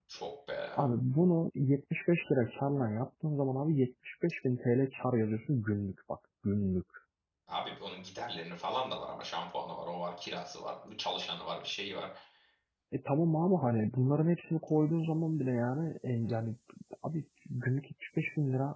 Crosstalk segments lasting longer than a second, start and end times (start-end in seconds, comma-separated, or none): none